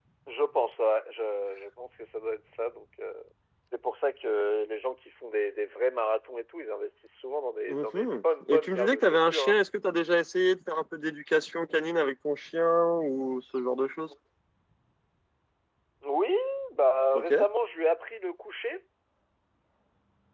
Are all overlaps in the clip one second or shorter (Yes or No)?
No